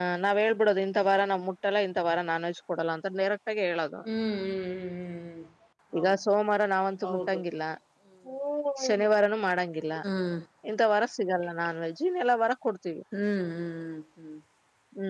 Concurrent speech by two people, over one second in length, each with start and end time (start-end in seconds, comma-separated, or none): none